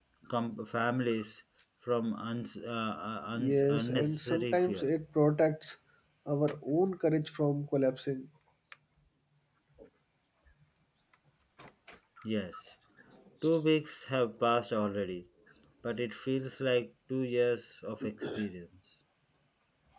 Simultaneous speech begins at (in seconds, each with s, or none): 3.4 s